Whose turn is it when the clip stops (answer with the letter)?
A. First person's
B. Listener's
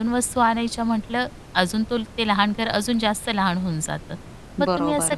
A